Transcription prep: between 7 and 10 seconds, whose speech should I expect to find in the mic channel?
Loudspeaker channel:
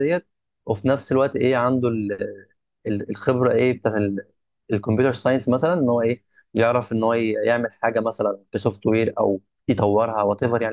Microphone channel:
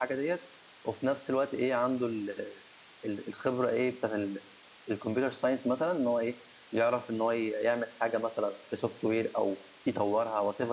echo only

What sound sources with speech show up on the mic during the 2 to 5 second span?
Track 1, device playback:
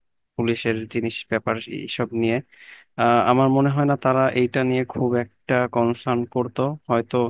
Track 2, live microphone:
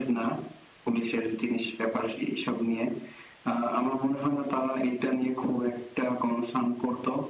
echo only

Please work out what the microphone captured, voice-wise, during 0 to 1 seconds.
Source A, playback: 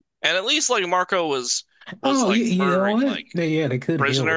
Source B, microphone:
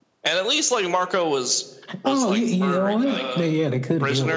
echo only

